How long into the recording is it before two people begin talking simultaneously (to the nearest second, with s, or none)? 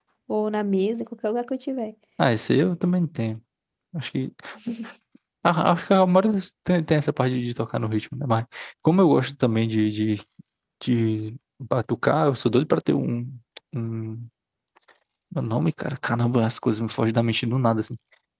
none